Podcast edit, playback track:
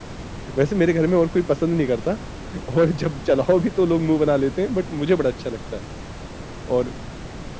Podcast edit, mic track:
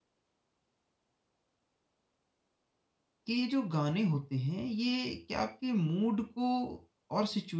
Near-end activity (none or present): present